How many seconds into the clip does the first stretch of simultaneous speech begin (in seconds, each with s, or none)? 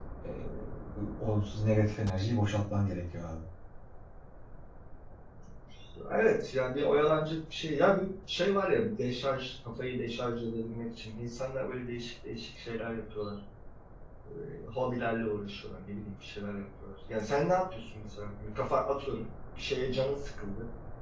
none